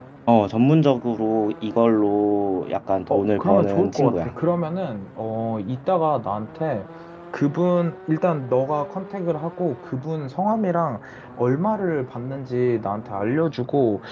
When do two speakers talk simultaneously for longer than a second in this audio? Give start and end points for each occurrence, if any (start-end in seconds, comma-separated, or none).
3.1-4.3